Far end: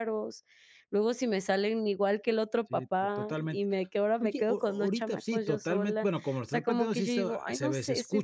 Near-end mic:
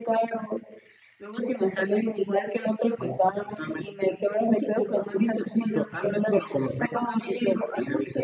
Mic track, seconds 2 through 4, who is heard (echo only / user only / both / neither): echo only